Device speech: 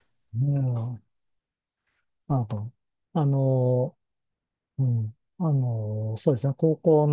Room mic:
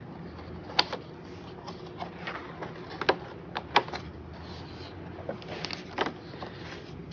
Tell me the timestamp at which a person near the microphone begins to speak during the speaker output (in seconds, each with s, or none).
none